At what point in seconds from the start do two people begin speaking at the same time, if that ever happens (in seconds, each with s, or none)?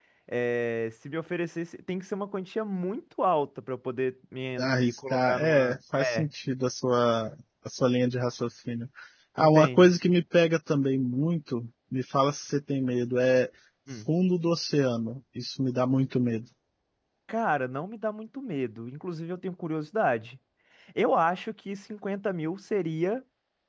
4.6 s